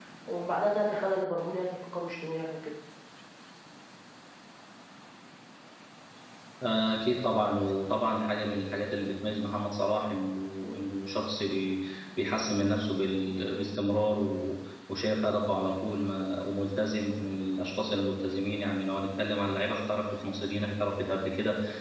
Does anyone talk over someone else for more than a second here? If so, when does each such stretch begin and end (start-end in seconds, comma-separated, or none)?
none